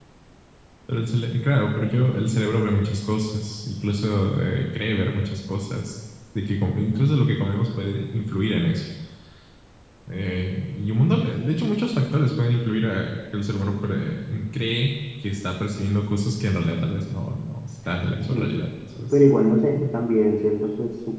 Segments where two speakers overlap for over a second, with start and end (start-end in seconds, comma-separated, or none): none